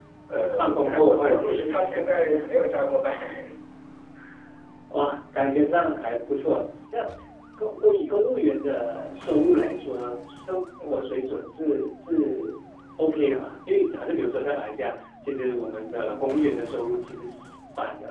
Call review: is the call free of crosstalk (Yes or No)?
No